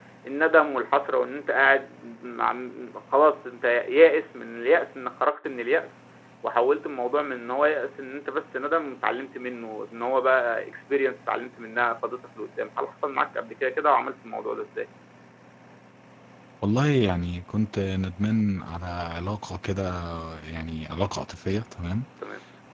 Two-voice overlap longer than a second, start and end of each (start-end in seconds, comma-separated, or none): none